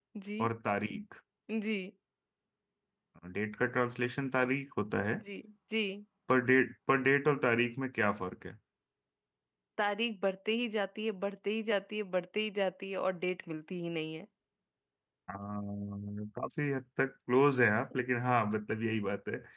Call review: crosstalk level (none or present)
none